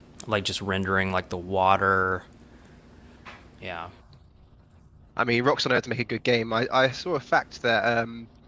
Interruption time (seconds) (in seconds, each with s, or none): none